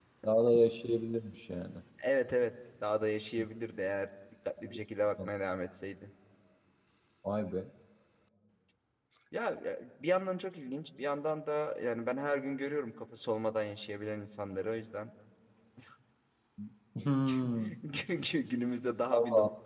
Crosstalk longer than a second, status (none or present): none